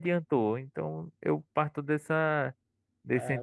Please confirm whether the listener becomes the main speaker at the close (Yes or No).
No